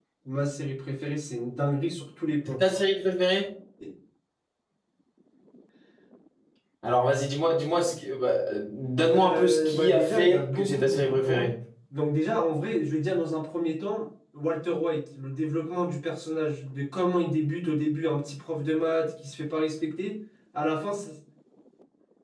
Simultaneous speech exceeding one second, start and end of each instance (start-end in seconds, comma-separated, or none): 9.1-11.5